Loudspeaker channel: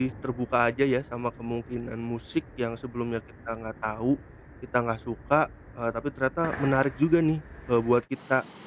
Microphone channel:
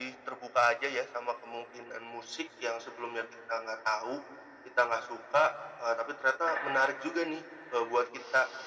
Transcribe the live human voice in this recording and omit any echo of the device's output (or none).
none